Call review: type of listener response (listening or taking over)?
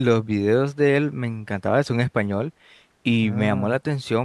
listening